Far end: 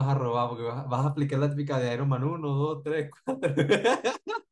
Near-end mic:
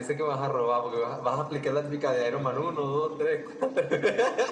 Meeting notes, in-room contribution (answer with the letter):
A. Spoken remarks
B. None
A